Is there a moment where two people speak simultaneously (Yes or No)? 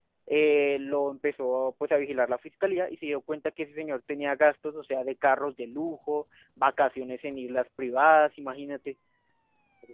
No